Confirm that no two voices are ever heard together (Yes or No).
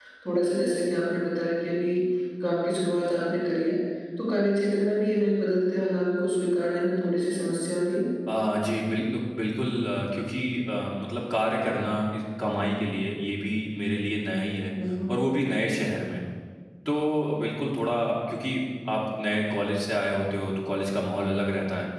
Yes